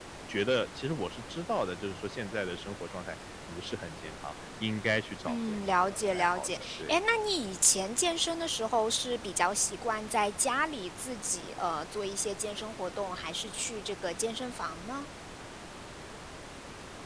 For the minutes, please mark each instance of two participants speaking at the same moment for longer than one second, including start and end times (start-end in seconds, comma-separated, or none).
5.3-7.0